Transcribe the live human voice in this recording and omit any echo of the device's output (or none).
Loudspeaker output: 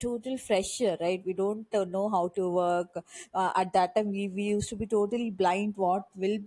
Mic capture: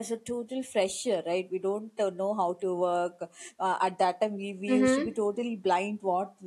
mm-hmm.